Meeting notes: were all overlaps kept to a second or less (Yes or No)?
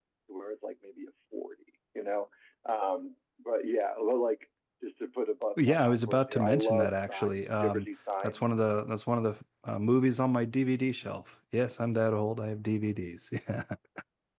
No